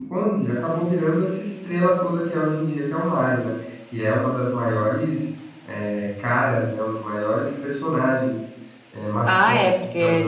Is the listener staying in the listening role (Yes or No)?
No